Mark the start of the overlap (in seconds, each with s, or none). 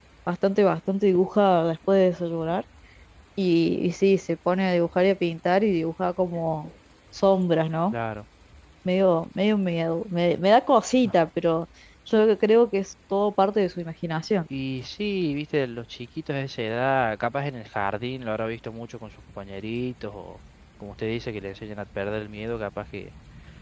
none